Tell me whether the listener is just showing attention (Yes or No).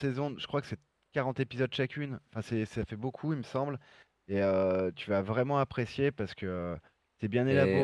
No